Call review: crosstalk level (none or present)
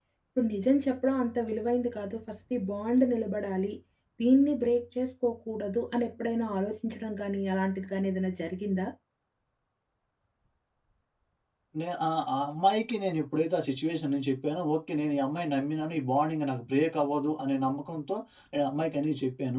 none